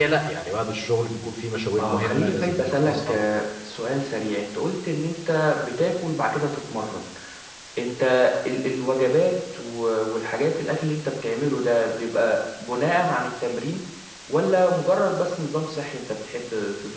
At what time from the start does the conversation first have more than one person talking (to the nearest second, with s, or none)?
2 s